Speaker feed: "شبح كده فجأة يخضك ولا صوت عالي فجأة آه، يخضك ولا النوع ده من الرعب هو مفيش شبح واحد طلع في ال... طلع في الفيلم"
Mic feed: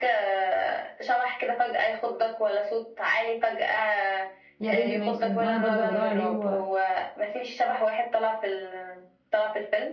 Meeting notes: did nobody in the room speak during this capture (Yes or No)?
No